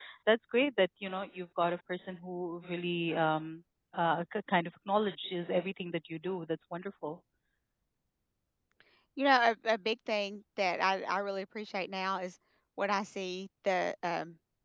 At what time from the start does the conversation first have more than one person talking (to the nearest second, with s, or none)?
none